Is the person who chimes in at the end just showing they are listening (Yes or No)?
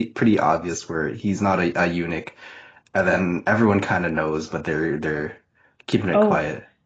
No